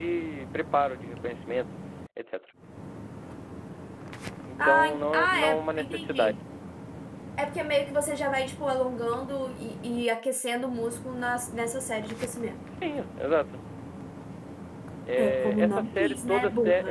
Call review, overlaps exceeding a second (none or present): present